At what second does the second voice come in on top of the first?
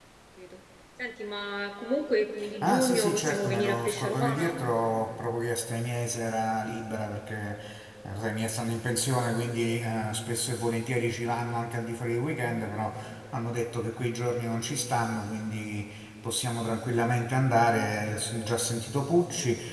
2.6 s

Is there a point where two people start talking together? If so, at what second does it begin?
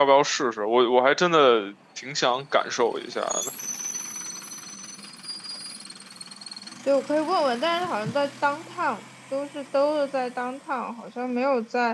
none

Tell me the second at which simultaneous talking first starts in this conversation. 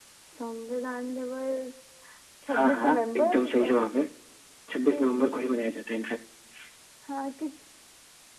2.5 s

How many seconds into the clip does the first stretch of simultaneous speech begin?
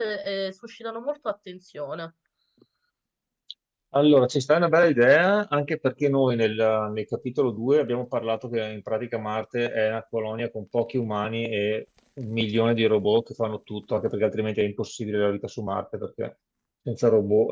none

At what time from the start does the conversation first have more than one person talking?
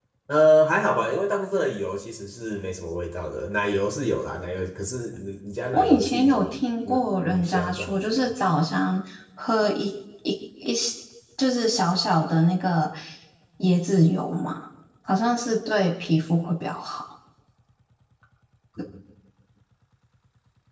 5.7 s

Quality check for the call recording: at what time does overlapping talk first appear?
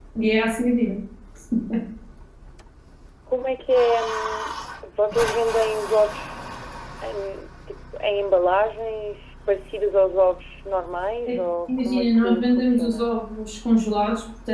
11.8 s

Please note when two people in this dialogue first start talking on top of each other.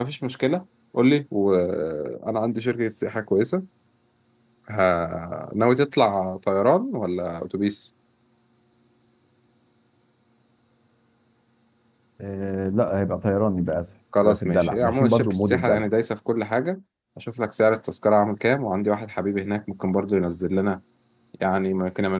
14.1 s

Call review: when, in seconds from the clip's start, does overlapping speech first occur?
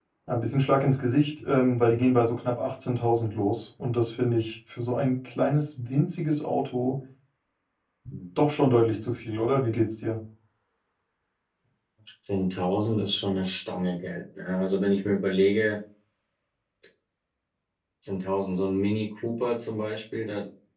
none

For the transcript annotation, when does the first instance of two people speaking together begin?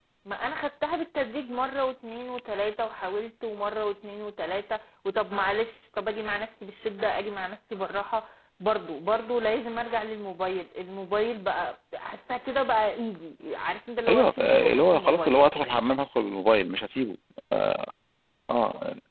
14.1 s

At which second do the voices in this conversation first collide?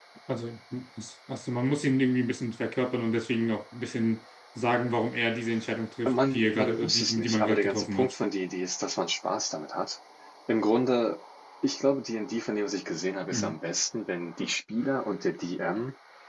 6.1 s

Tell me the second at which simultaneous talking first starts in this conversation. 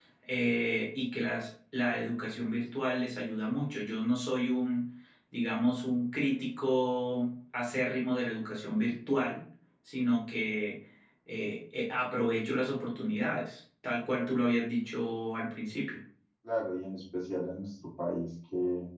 none

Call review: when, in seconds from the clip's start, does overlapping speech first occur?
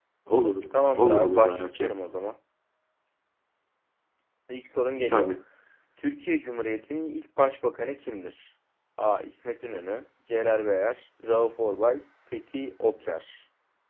0.7 s

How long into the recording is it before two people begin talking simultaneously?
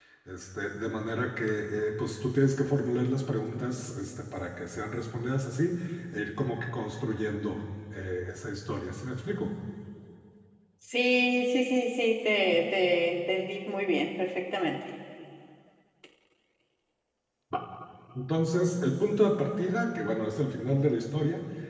none

